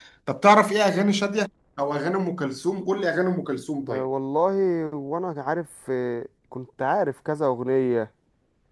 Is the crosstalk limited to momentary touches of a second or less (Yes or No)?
Yes